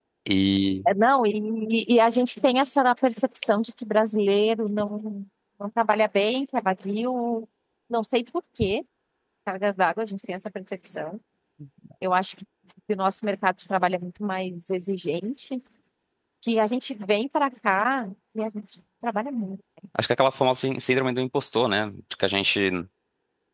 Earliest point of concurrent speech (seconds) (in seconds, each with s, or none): none